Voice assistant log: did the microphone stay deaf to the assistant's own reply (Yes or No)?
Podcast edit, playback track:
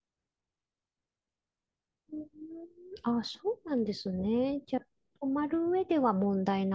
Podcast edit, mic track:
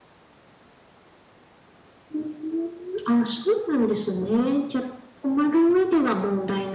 No